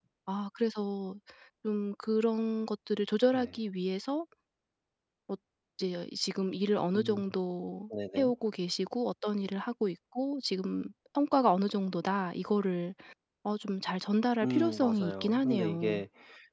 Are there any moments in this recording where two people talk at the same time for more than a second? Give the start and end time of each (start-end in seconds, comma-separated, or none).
14.4-16.0